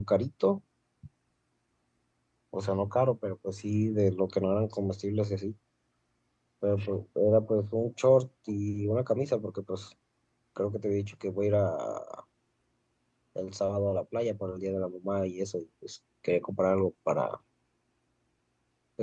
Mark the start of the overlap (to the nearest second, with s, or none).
none